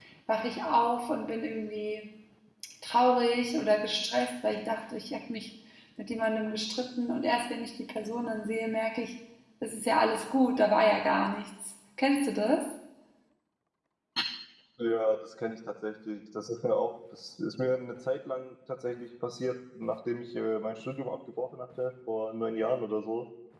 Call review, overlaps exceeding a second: none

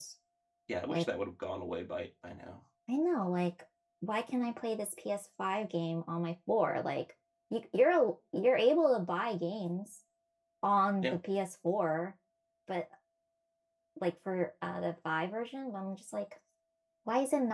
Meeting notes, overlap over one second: none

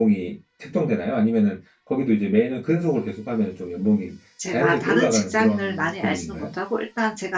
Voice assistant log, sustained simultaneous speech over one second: present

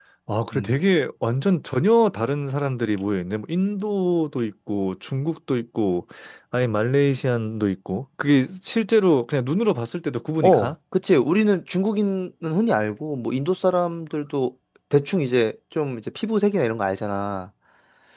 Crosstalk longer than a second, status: none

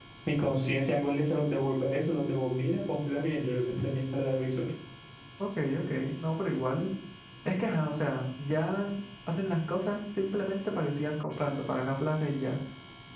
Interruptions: none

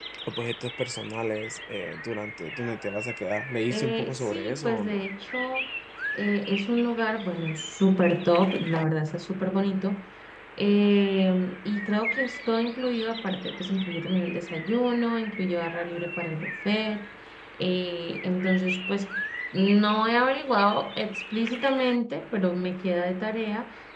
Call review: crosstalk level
present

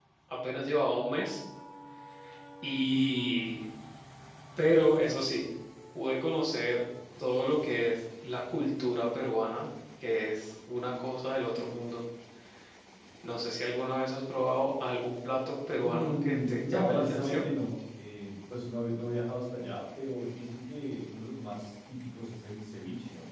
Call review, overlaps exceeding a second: present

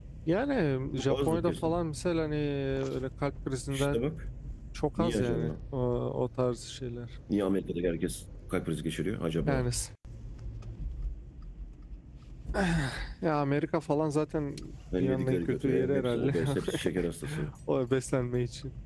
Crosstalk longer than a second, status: present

